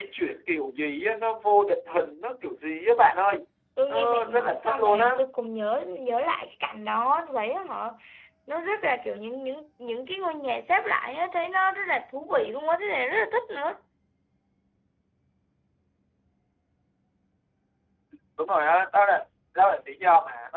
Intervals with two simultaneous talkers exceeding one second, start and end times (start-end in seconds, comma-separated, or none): 3.9-5.2